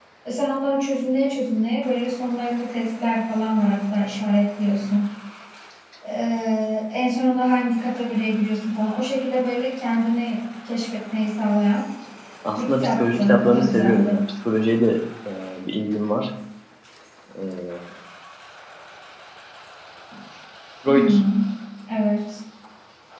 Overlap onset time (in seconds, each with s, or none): 12.6 s